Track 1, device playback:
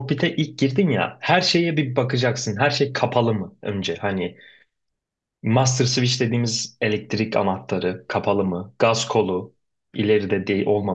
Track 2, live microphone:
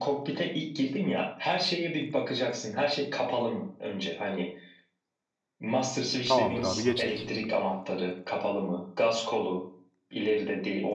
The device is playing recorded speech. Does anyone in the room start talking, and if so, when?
6 s

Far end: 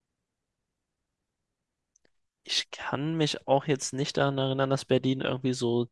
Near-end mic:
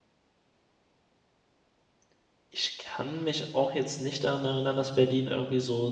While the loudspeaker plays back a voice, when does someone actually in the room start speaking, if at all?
none

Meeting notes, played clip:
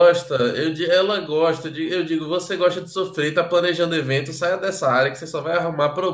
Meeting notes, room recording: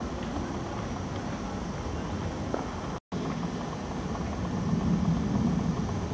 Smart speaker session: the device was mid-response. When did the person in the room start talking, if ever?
none

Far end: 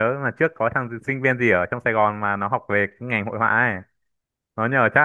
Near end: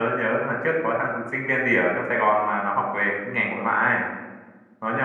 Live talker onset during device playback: none

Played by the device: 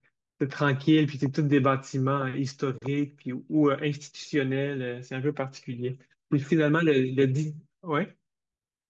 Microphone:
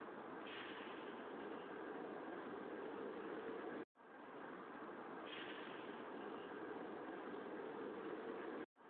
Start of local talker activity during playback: none

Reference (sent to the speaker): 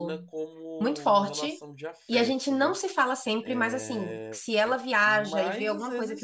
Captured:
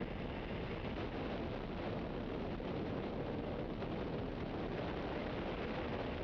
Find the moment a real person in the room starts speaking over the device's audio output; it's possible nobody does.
none

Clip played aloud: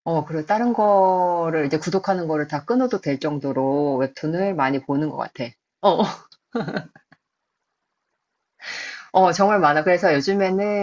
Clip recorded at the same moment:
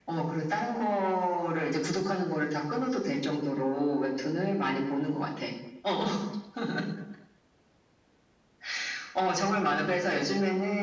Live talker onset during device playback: none

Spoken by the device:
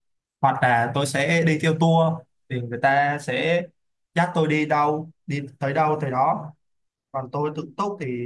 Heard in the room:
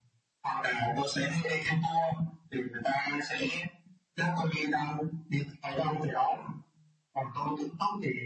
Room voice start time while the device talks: none

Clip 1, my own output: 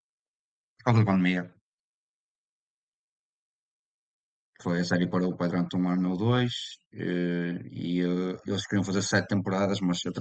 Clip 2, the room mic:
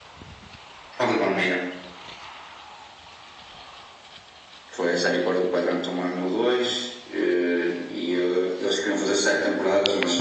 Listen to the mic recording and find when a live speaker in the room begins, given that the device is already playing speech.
none

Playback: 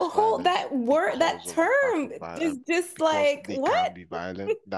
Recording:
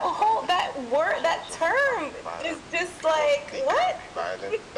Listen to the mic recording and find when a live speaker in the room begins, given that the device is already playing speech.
none

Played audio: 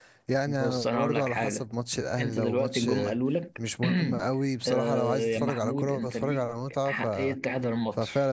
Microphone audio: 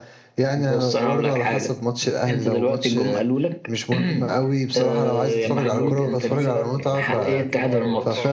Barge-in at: 6 s

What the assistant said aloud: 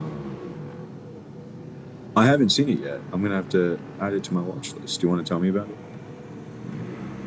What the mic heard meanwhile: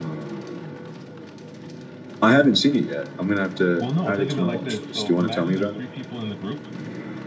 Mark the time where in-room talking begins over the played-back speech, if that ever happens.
4 s

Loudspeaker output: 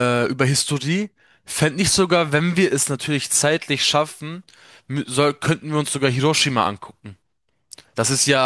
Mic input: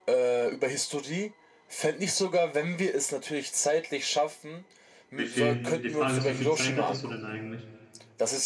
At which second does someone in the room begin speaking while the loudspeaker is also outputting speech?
5 s

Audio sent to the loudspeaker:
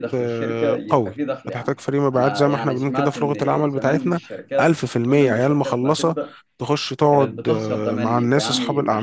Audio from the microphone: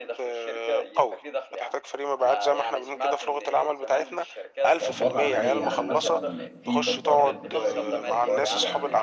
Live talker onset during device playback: 5 s

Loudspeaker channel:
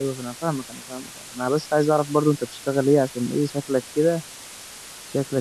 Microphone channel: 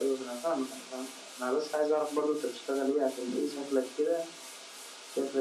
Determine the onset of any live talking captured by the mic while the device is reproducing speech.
none

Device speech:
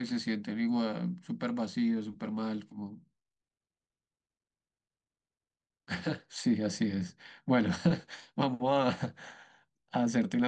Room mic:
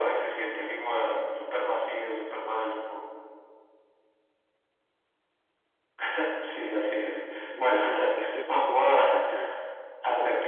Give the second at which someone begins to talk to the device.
7 s

